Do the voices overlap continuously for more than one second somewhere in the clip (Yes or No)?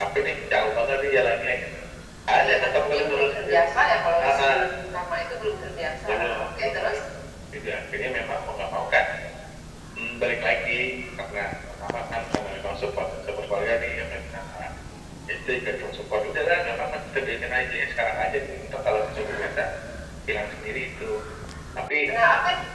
Yes